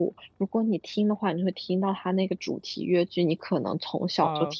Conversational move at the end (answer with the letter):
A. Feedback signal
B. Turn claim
A